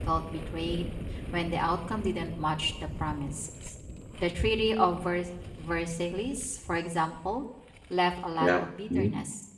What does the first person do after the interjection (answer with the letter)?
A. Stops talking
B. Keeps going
B